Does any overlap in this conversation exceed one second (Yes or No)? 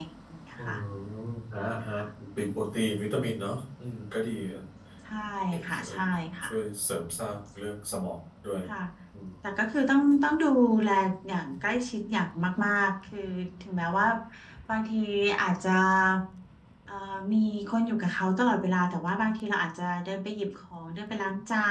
No